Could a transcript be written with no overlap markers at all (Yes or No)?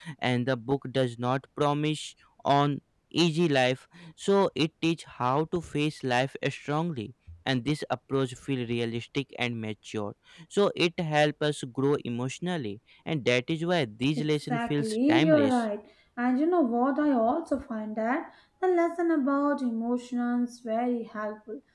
No